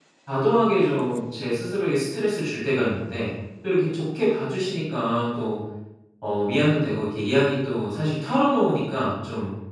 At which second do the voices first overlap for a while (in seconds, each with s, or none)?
none